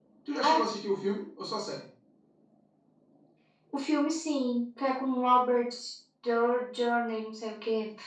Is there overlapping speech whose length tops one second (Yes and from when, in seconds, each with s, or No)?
No